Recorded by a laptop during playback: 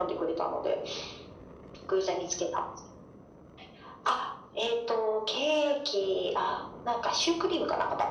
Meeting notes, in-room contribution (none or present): none